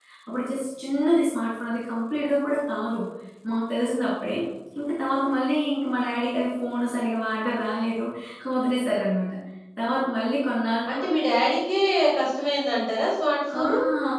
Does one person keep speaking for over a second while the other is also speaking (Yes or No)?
No